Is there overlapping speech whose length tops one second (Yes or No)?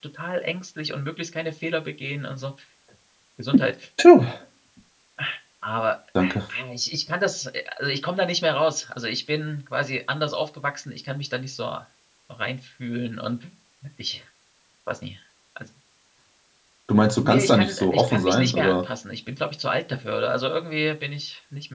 Yes